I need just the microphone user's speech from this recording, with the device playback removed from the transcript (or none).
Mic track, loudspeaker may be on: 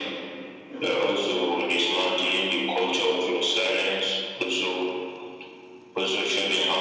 none